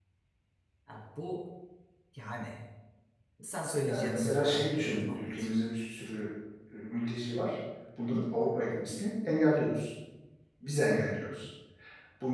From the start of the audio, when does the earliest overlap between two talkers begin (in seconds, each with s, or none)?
3.9 s